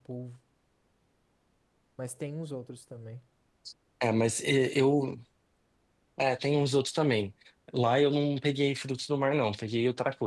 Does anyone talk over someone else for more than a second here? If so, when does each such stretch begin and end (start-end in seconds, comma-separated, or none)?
none